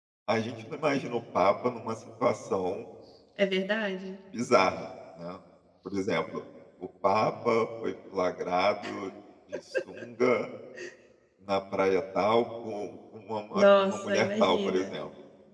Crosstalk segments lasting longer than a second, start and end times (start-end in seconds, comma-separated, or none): 13.5-14.9